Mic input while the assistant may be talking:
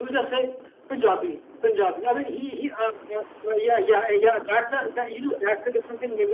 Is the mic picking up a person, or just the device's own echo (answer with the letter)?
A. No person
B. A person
A